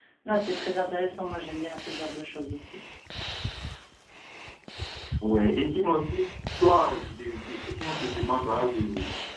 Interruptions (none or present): none